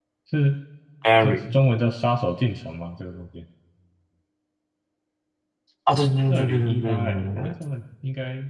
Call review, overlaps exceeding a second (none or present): present